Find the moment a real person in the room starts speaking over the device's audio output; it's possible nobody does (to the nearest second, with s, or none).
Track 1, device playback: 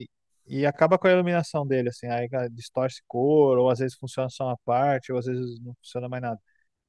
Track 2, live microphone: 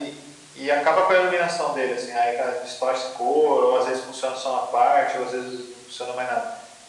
none